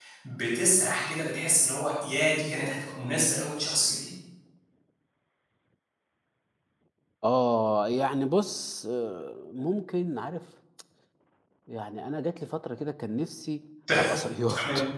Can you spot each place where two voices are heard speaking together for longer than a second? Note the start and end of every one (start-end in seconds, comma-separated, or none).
none